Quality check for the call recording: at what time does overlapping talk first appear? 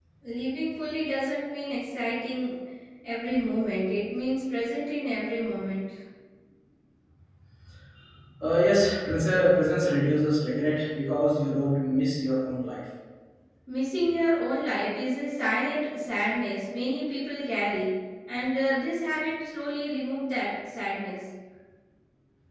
none

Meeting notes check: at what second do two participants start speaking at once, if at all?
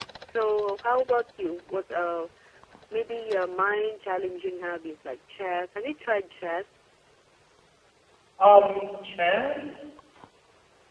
none

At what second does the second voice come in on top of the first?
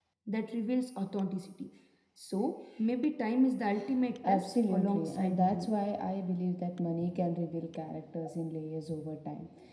4.2 s

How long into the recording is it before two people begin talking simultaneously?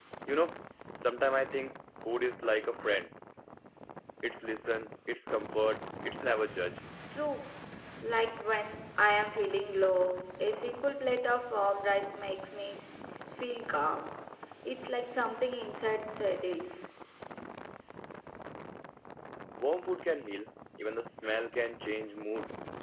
none

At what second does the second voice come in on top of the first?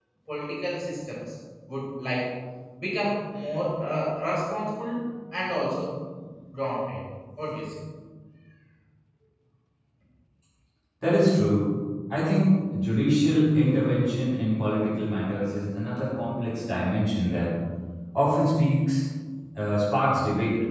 none

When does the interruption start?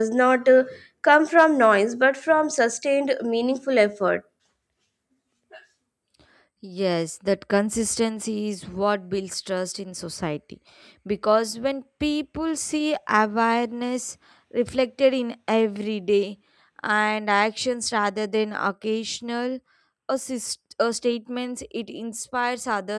none

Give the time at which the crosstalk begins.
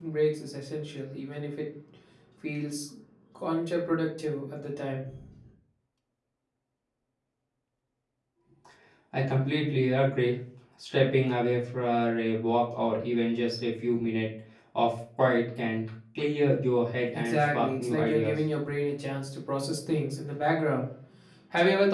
17.1 s

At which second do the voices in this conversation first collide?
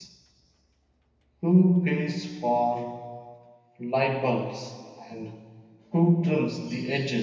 none

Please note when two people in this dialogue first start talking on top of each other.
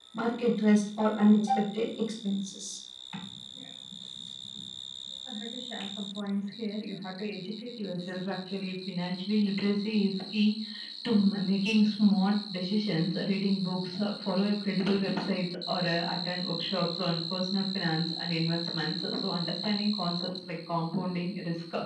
none

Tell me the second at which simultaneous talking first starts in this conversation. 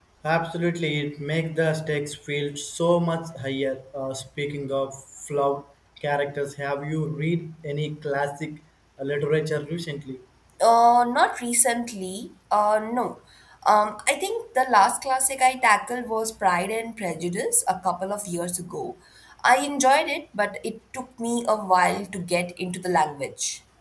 none

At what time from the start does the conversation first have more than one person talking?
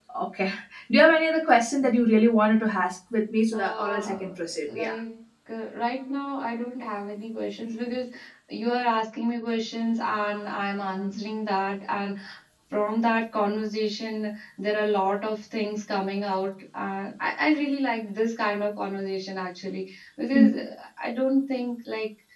3.5 s

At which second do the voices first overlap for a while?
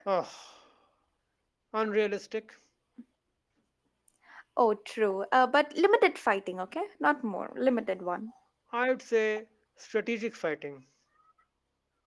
none

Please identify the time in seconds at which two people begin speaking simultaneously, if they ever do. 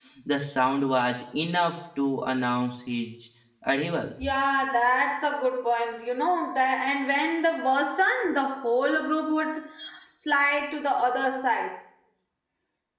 none

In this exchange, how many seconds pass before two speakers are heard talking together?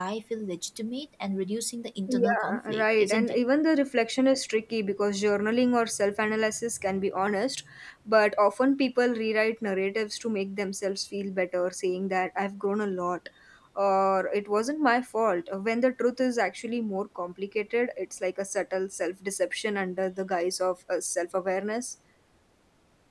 2.1 s

